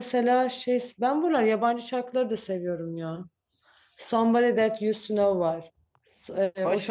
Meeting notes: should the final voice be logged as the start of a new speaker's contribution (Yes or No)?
Yes